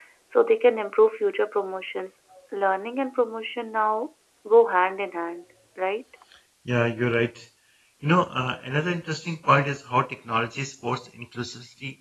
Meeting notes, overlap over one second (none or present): none